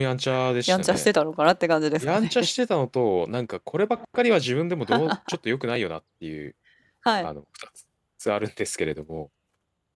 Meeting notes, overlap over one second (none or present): none